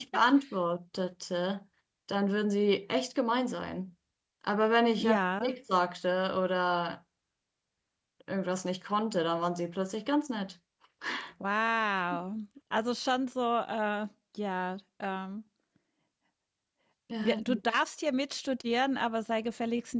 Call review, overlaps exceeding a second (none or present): none